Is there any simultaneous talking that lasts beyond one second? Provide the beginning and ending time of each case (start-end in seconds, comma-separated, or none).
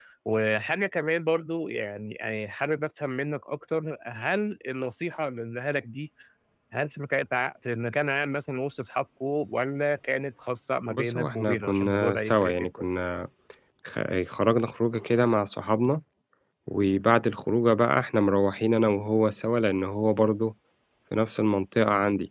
10.9-12.9